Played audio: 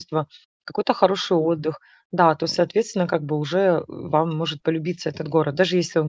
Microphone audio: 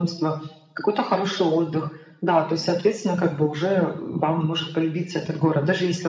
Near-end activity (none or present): none